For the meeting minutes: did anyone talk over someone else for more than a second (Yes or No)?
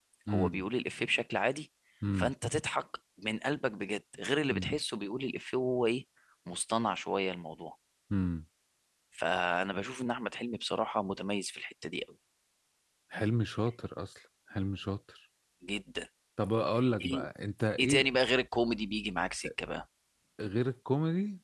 No